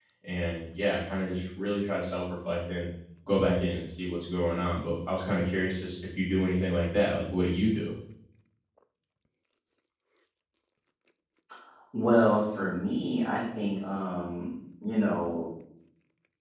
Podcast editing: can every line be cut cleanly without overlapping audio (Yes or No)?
Yes